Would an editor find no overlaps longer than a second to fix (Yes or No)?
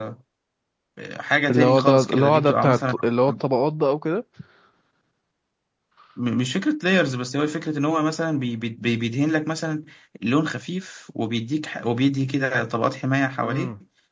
No